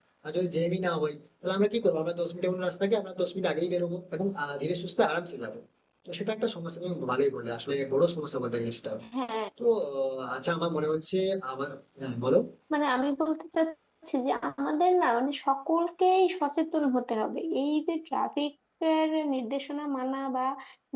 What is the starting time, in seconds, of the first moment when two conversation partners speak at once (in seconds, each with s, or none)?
none